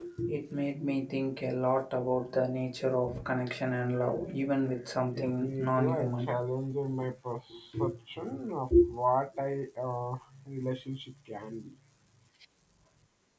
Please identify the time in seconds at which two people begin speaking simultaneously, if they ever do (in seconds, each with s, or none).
5.1 s